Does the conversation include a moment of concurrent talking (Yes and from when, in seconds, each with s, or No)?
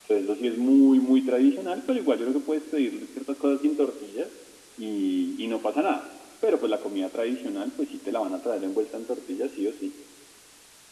No